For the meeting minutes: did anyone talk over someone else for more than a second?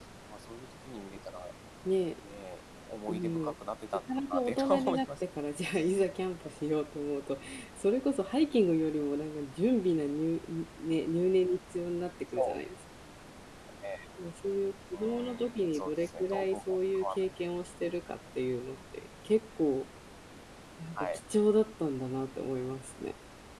Yes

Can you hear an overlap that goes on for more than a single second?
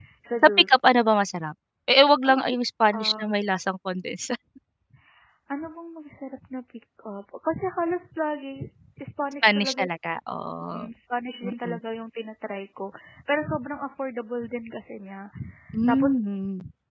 No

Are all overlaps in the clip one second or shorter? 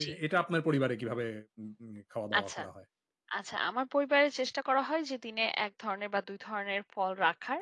Yes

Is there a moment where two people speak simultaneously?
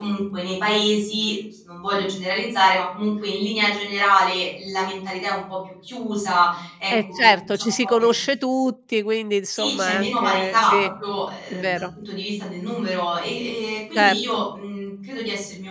Yes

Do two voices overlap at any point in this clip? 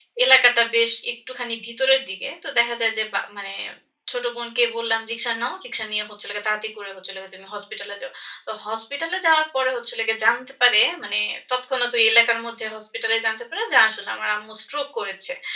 No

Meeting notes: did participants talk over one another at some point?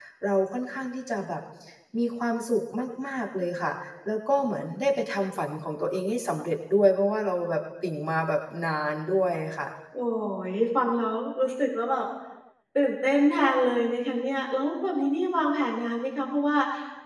No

